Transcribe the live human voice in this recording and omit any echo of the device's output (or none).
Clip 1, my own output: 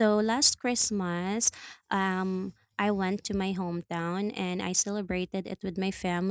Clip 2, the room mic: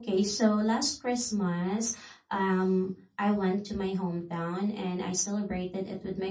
none